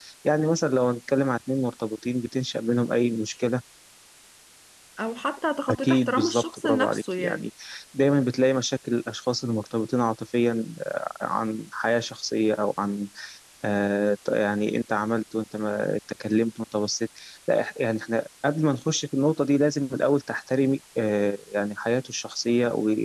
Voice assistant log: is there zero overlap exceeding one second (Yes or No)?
No